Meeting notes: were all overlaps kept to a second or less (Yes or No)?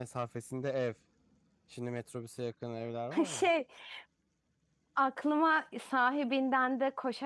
Yes